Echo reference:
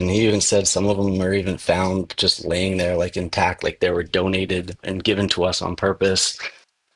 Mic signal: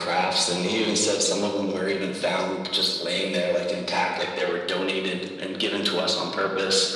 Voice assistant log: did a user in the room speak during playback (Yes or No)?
No